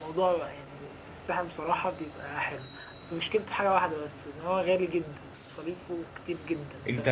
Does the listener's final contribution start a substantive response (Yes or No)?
Yes